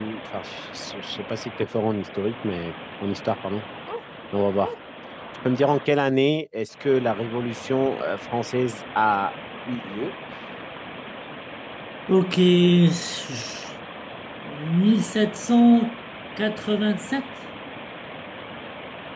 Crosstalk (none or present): none